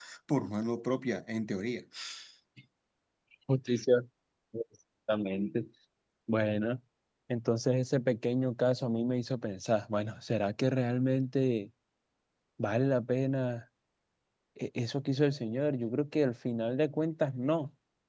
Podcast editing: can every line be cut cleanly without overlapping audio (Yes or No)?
Yes